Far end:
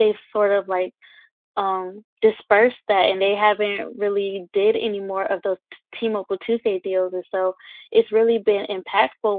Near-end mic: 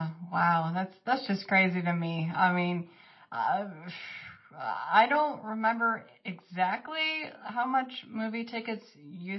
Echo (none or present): none